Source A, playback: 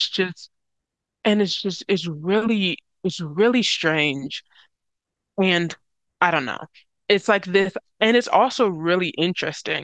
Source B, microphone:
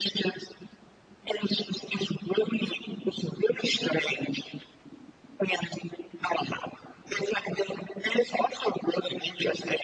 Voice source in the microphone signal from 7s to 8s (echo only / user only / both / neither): echo only